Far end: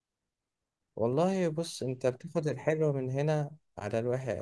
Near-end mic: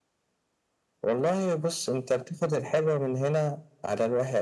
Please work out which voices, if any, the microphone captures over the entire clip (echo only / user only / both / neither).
echo only